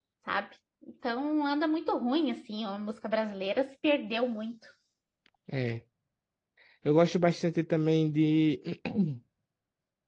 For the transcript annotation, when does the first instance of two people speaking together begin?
none

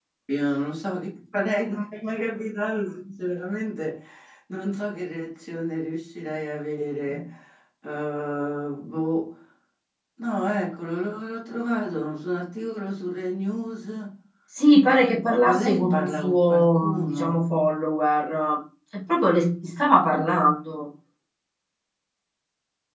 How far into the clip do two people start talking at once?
15.4 s

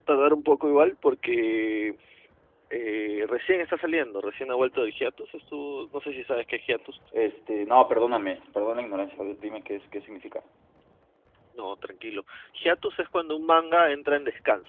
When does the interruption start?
none

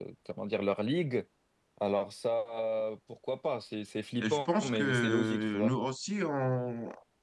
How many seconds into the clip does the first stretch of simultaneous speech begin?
4.2 s

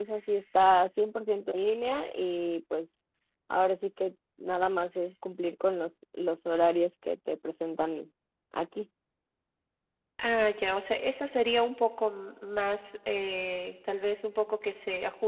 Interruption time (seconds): none

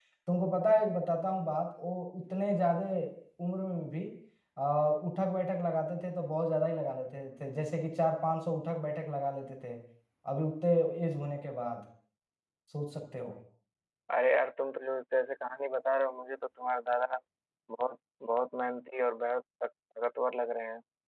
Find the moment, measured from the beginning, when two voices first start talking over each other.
none

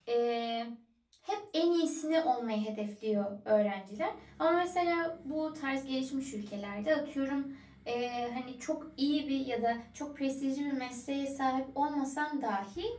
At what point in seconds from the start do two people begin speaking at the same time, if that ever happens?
none

